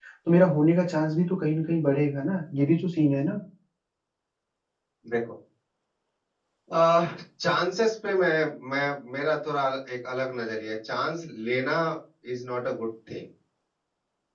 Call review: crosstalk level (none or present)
none